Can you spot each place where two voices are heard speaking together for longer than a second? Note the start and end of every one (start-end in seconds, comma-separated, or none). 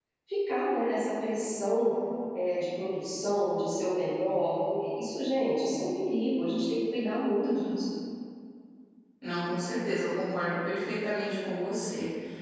none